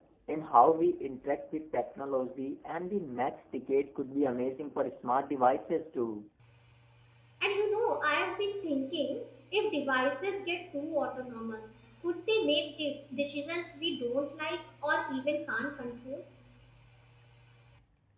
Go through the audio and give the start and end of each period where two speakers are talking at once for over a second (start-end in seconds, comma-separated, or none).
none